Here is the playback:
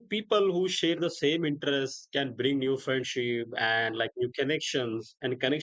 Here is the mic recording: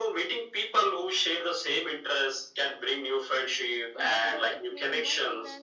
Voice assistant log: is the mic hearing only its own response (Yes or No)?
No